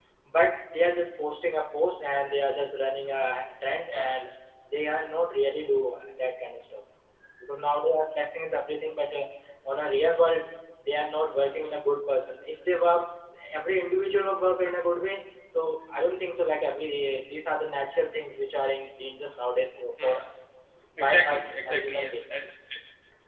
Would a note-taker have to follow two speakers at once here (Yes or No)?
Yes